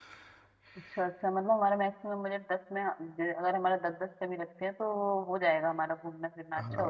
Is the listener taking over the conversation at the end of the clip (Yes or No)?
Yes